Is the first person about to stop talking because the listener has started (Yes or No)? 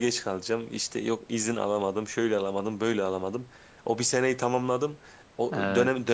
No